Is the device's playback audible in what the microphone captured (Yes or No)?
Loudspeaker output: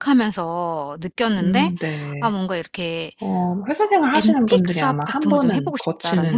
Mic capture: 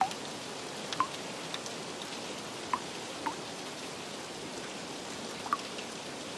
No